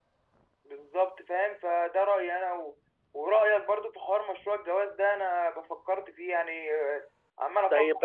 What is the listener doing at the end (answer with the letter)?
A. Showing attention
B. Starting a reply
B